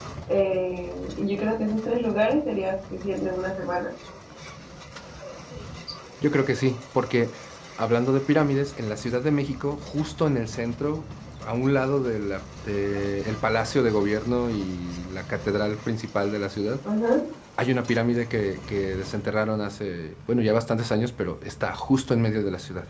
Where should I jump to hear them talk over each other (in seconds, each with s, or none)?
none